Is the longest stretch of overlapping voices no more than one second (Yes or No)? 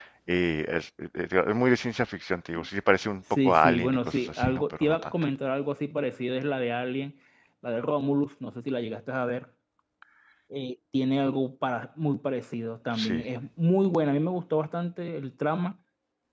No